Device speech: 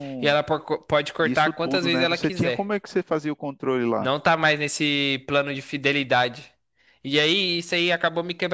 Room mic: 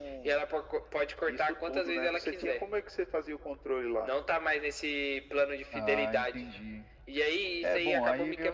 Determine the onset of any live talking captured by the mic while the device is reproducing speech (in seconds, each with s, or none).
5.7 s